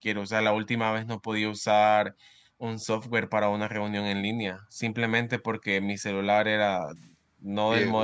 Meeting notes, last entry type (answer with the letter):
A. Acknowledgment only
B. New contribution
A